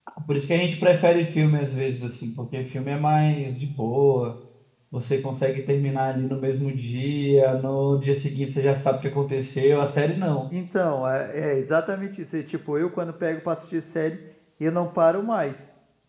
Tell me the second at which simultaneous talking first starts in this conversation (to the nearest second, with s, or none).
none